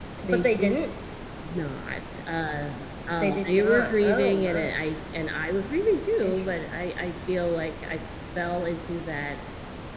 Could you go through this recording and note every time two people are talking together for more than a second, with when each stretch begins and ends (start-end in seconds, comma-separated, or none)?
3.2-4.8